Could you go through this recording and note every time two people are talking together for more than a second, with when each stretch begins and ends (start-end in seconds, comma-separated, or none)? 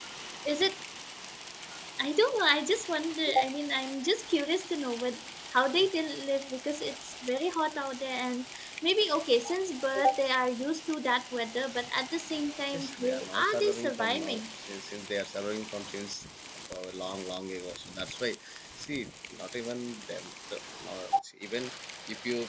12.7-14.4